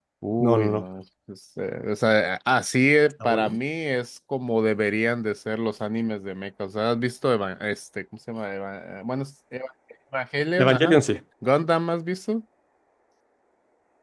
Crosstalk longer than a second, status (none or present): none